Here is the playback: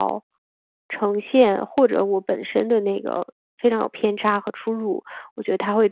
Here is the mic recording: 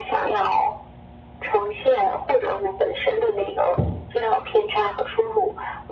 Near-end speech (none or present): none